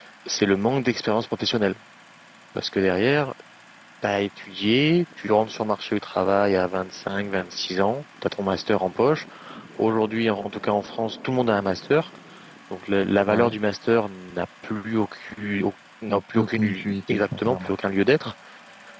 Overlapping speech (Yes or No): Yes